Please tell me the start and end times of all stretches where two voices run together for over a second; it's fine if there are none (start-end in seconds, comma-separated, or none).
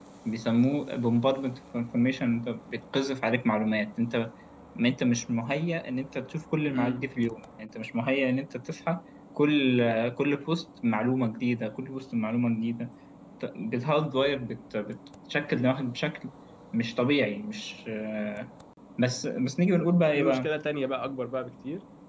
none